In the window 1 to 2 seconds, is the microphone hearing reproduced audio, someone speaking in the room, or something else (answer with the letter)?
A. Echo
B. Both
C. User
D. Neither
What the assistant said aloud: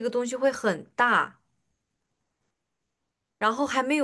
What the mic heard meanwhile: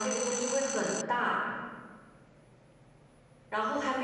A